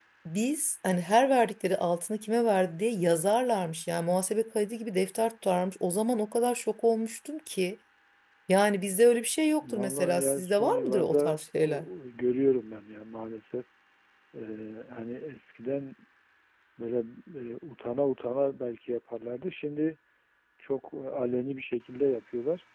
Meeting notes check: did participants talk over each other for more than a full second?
Yes, from 9.6 s

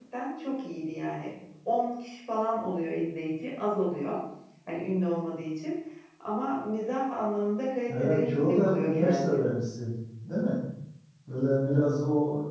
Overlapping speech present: Yes, from 7.9 s

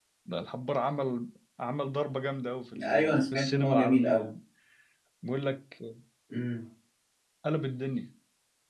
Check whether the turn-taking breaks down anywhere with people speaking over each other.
Yes, from 2.7 s

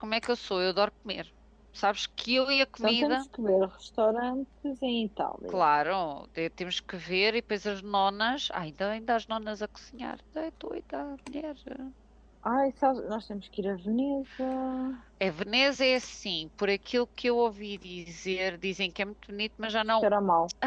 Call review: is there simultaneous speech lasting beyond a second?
No

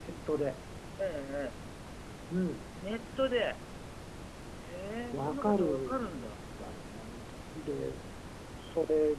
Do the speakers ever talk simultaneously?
Yes, from 5.1 s

